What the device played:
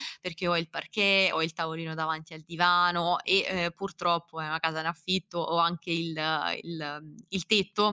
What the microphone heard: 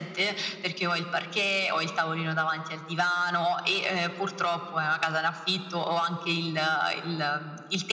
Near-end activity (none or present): none